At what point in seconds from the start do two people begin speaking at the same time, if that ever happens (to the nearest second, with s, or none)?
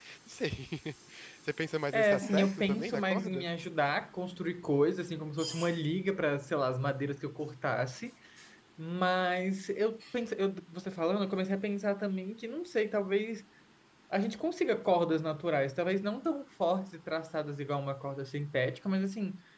2 s